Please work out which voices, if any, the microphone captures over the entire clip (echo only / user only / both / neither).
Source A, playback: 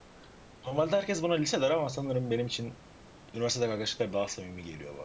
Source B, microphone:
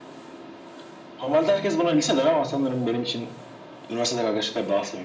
echo only